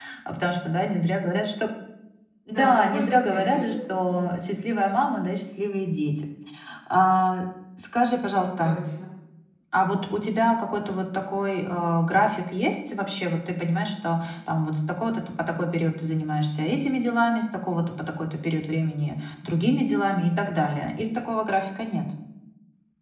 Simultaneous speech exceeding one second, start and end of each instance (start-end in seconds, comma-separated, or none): 2.5-3.8